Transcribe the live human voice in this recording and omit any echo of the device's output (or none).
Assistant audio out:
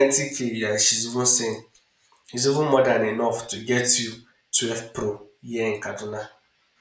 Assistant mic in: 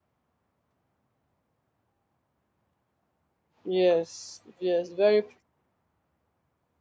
Yes, yes, very,